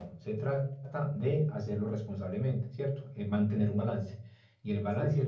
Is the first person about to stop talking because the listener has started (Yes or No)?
No